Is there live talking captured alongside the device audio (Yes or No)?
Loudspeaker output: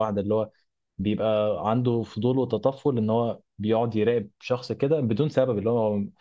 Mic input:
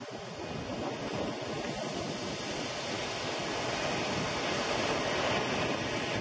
No